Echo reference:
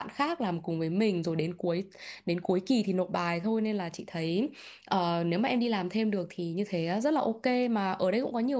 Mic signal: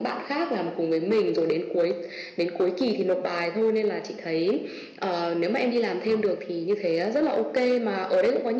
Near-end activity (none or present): present